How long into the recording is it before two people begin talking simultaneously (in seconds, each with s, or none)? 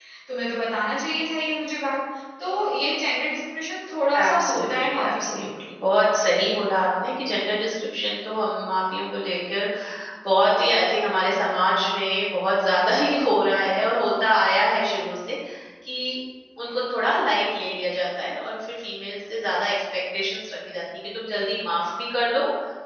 4.1 s